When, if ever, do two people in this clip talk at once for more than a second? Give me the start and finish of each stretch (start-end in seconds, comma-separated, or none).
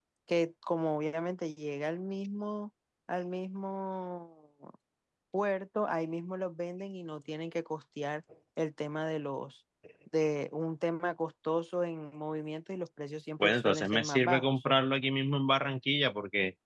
13.4-14.6